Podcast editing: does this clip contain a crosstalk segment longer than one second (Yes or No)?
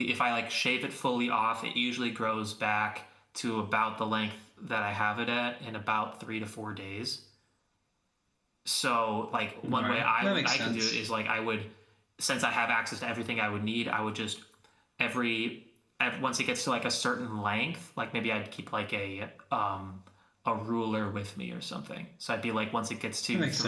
Yes